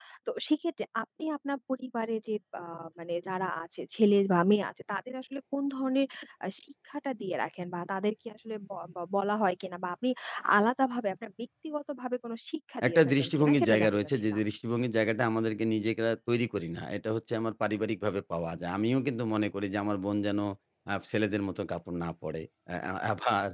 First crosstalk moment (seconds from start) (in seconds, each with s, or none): 12.8 s